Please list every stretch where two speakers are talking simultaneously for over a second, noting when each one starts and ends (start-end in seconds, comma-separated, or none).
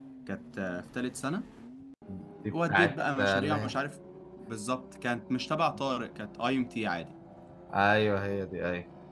2.5-3.8